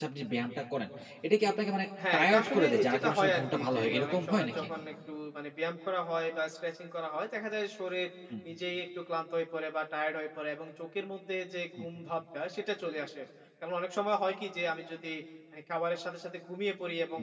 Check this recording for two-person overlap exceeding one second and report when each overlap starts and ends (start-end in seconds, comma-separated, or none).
2.1-4.7